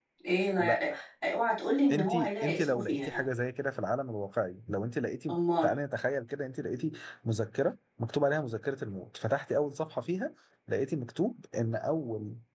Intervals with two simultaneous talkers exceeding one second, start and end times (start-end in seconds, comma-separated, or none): 1.9-3.2